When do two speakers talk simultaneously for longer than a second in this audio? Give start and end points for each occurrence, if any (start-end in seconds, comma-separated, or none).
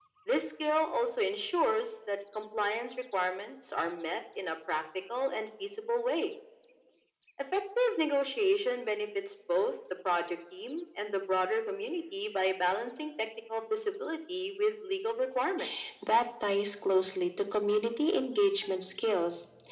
none